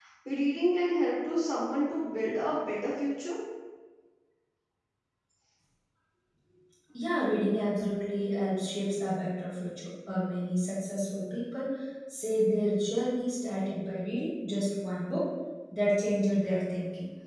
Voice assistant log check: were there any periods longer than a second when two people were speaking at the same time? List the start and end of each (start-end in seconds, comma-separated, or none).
none